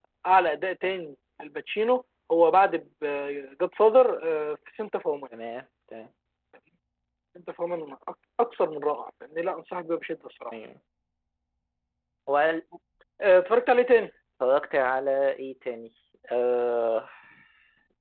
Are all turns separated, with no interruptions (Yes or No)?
Yes